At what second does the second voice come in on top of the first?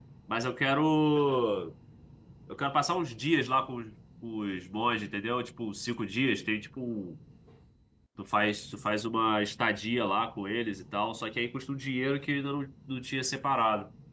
none

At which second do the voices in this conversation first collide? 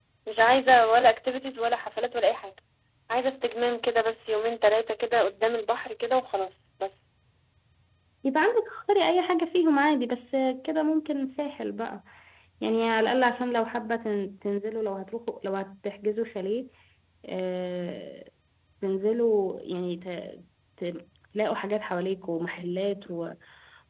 none

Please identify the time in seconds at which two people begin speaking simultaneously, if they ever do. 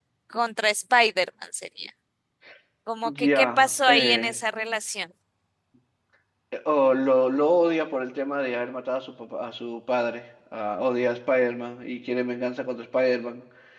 3 s

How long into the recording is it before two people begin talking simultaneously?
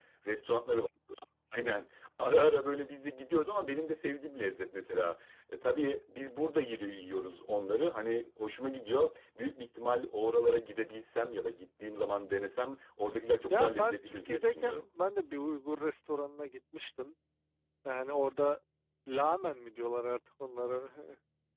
14 s

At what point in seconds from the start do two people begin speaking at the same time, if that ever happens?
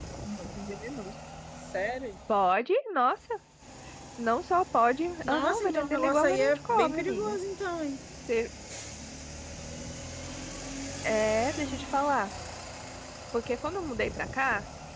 5 s

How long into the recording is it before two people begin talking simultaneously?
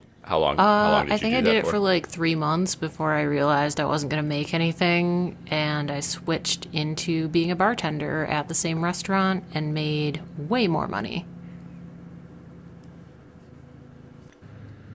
1 s

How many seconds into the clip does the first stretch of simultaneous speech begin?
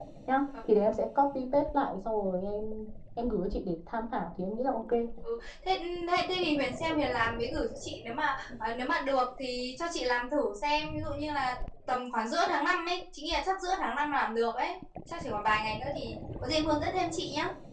none

